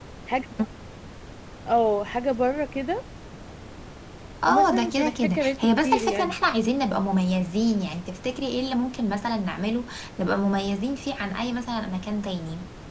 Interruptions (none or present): present